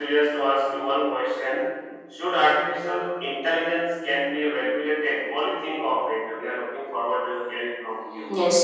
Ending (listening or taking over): taking over